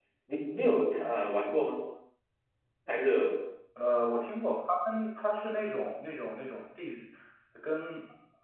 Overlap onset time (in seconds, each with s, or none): none